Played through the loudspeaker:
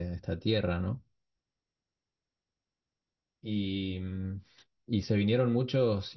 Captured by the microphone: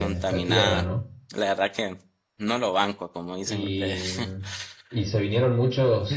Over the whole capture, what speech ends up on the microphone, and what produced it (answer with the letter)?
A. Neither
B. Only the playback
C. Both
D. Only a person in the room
C